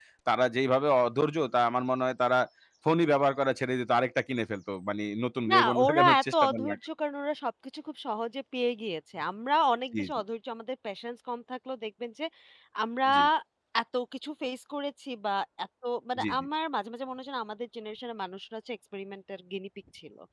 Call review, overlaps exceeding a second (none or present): present